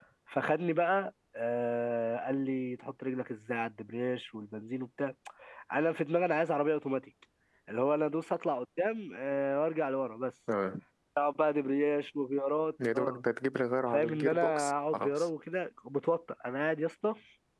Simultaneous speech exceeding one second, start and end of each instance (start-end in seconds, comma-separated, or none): 13.9-15.3